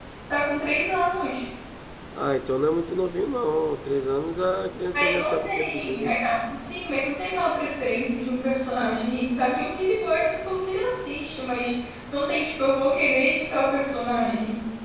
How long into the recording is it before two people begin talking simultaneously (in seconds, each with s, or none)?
4.9 s